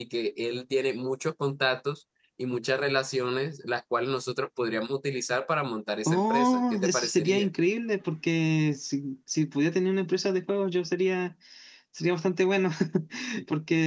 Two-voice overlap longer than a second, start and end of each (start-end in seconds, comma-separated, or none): 6.1-7.5